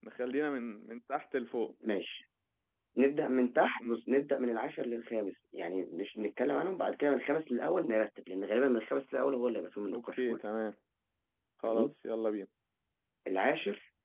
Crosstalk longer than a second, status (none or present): none